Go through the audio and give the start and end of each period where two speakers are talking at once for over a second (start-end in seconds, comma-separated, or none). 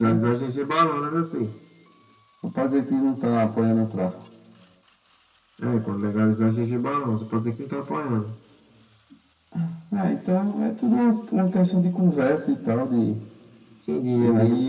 none